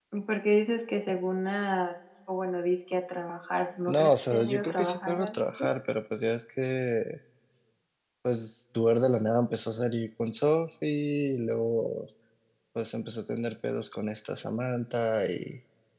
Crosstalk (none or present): present